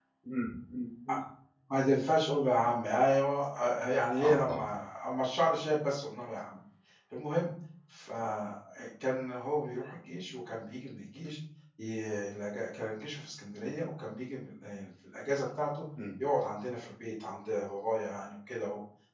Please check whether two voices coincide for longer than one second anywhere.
No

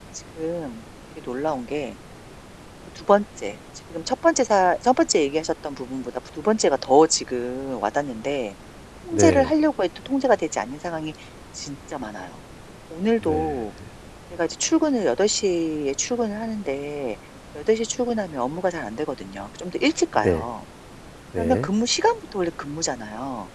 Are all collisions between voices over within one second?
Yes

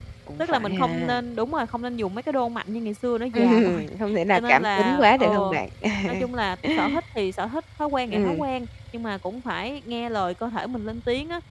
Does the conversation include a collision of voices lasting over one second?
Yes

